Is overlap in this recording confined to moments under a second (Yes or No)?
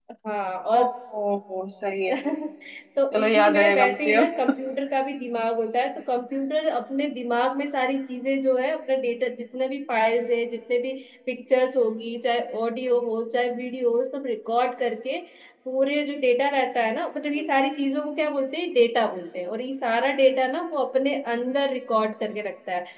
No